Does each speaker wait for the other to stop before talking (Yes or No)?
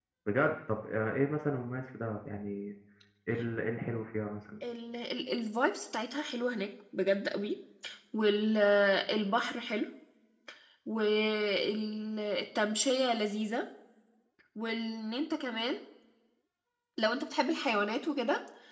Yes